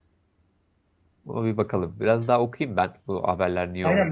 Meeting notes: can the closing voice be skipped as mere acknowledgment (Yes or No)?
No